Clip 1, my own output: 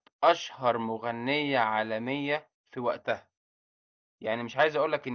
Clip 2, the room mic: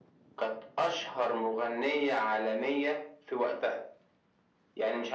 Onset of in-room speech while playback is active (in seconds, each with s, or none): none